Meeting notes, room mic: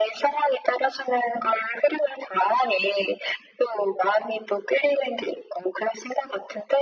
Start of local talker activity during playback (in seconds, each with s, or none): none